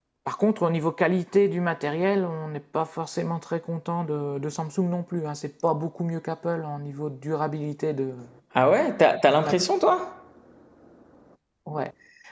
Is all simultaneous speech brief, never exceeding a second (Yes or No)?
Yes